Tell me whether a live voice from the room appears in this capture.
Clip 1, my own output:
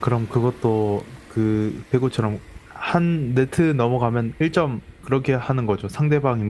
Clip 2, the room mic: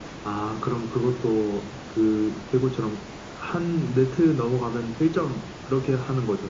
No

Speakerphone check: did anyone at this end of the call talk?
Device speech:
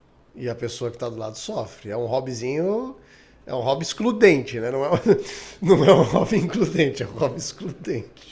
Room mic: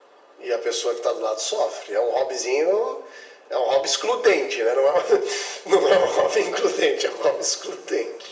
No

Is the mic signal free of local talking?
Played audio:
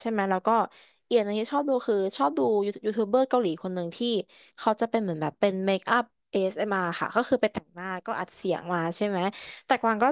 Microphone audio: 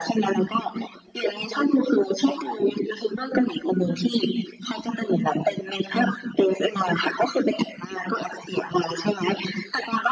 Yes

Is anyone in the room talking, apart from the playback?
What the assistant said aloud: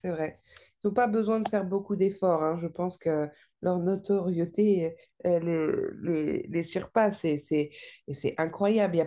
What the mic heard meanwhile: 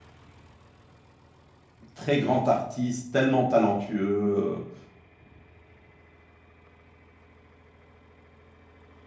Yes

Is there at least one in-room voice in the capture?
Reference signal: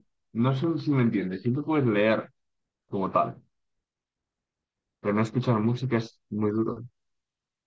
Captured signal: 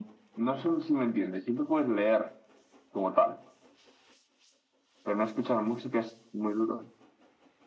No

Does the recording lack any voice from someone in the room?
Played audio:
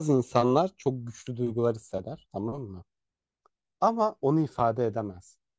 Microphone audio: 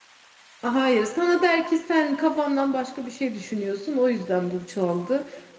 No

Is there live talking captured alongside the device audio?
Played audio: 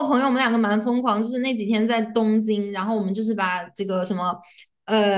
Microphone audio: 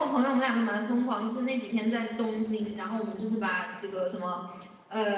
No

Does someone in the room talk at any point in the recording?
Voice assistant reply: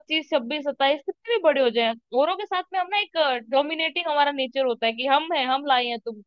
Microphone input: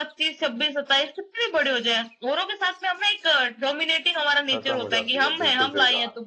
Yes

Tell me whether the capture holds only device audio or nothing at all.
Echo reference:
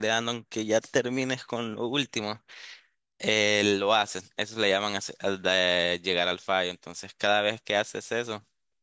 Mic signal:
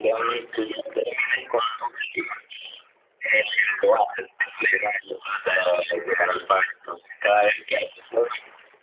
Yes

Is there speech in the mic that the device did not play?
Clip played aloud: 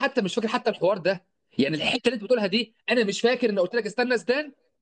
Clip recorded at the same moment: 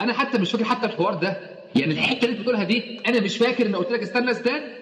No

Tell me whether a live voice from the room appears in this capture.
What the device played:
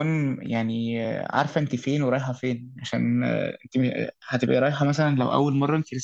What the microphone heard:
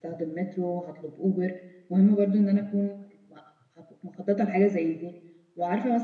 Yes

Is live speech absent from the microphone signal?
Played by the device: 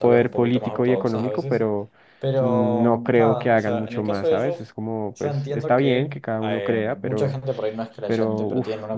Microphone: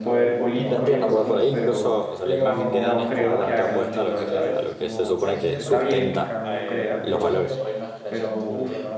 No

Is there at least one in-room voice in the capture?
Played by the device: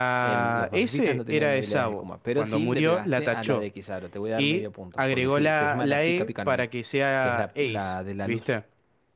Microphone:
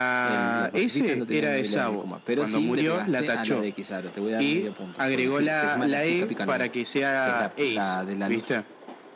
No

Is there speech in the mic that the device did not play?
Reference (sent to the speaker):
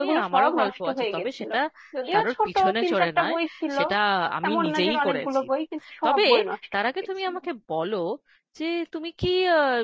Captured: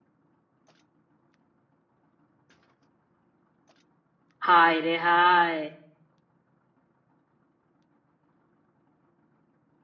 Yes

